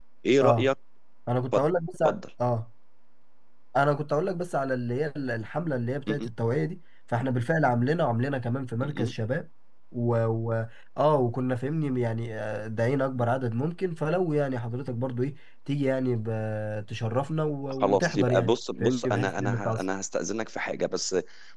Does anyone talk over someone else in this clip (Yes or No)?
Yes